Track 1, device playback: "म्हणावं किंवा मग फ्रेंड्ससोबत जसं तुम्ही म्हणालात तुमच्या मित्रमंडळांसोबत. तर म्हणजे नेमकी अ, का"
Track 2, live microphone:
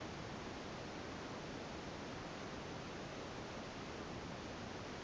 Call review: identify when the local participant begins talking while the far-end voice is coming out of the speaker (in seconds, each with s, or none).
none